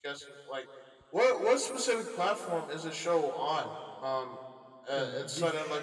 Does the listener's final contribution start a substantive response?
No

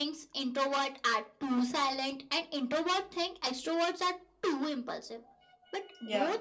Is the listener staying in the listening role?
Yes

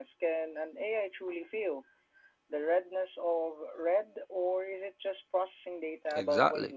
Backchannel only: No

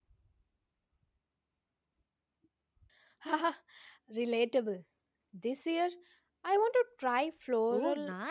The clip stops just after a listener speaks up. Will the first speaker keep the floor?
No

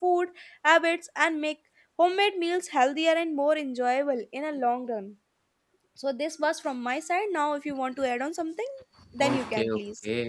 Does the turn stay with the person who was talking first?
No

